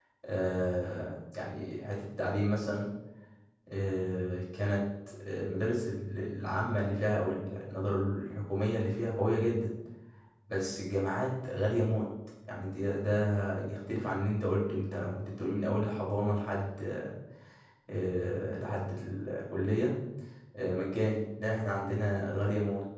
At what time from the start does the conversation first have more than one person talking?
none

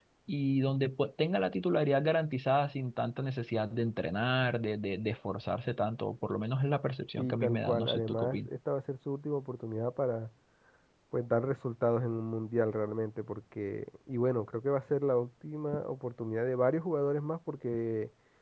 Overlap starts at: 7.2 s

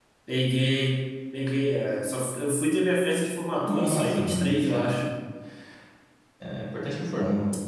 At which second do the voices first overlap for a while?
3.6 s

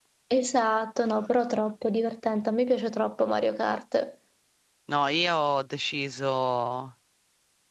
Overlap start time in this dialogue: none

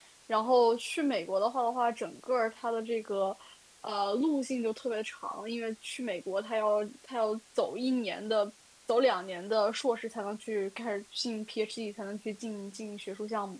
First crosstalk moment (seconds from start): none

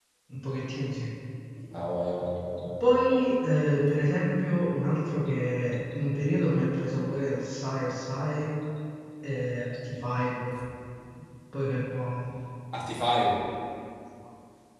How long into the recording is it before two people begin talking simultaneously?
none

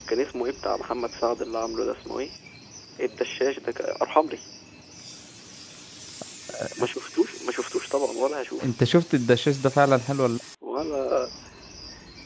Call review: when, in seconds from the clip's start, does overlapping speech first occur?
none

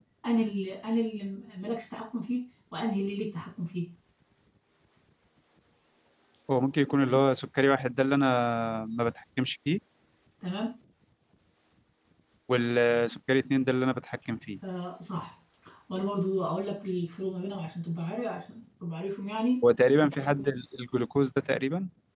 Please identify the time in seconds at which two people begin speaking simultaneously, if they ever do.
none

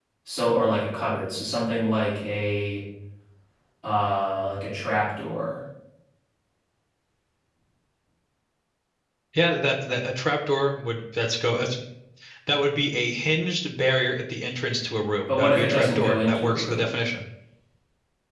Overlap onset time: 15.3 s

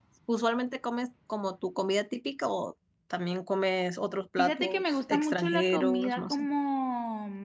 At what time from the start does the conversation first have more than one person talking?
4.4 s

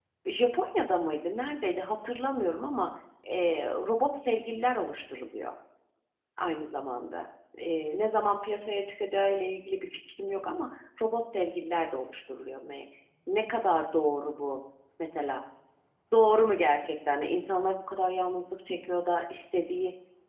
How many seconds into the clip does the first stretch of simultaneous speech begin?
none

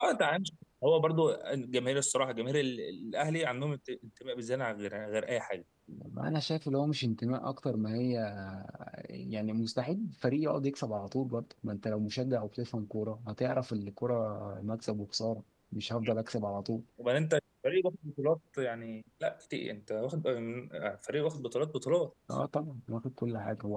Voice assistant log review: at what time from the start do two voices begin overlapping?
none

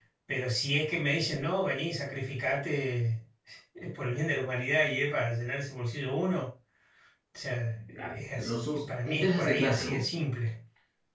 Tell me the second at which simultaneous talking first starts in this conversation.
8.0 s

